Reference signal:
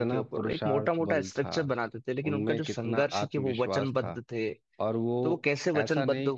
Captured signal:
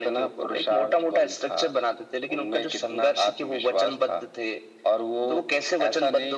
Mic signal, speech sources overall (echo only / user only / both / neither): echo only